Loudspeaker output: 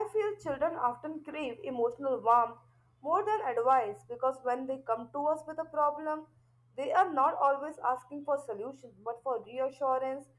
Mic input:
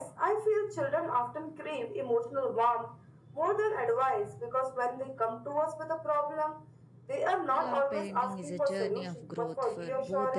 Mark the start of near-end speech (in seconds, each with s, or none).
7.5 s